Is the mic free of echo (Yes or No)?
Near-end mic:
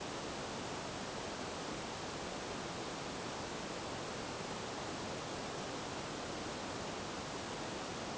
Yes